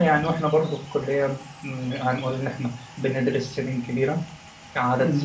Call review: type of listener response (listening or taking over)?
listening